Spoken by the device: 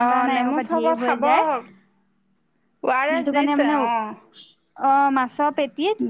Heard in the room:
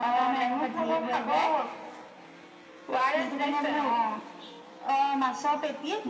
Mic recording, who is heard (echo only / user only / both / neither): echo only